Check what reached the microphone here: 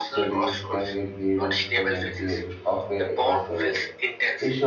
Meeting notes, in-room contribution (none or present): present